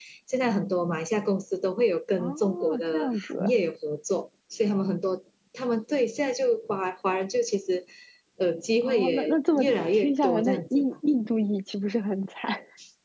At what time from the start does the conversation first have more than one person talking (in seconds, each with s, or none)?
2.2 s